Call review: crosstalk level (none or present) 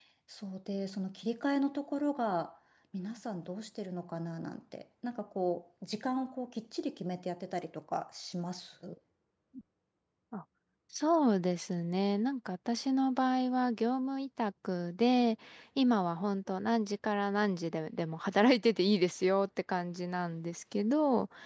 none